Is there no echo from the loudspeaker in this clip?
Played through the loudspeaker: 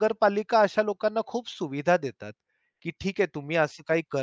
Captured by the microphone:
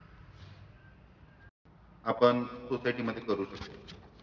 Yes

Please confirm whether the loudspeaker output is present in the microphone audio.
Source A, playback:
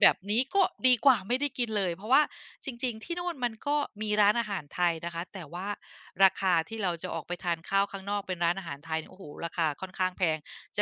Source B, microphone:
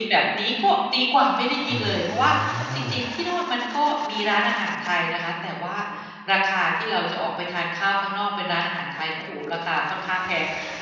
Yes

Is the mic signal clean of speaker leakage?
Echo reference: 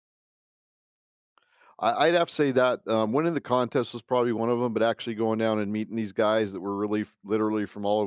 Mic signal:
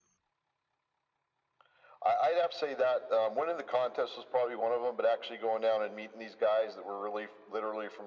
No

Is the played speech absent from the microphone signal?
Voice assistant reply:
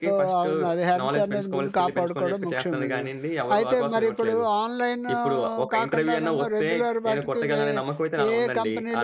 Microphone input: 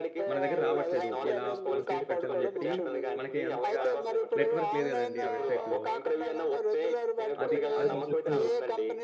No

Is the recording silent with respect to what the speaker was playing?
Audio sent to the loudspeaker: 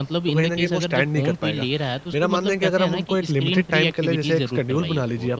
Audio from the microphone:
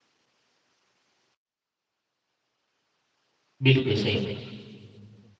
Yes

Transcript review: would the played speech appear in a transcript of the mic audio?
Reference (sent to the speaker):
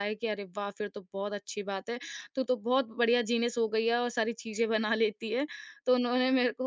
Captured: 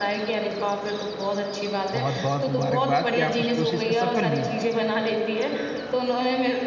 Yes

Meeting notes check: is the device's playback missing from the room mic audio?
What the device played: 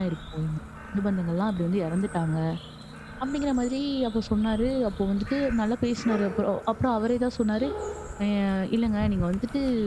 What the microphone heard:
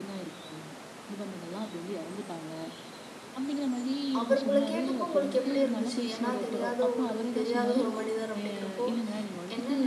No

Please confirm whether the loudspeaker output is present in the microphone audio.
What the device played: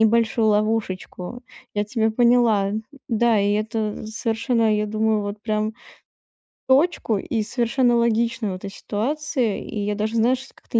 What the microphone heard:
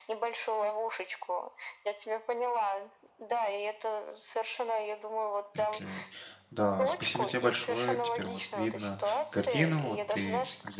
Yes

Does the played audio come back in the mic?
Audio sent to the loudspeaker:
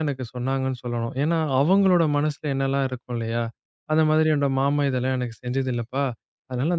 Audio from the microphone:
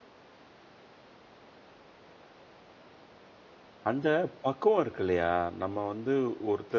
No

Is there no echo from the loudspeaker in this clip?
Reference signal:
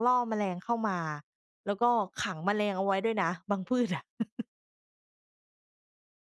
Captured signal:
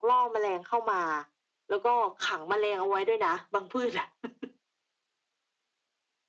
No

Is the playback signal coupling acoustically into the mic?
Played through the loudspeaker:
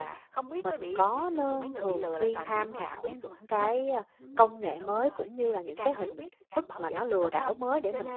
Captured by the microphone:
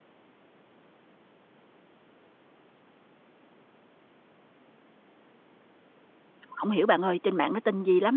No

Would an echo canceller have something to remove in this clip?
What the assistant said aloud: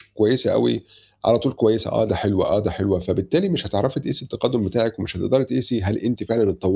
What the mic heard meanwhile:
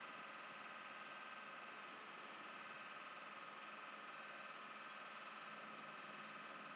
No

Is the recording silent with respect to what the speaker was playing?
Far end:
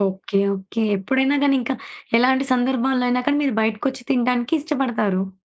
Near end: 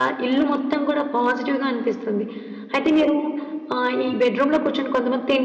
Yes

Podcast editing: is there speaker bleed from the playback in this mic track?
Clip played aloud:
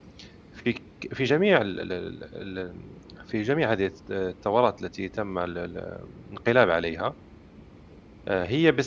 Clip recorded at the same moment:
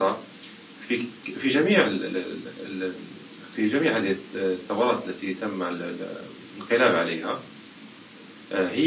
Yes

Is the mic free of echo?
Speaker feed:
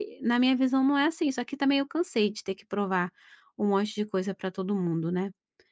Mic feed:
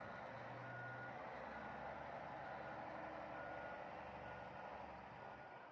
Yes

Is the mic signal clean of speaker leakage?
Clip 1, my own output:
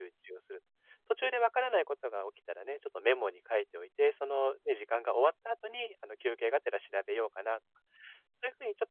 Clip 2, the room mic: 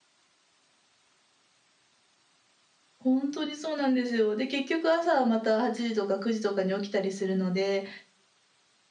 Yes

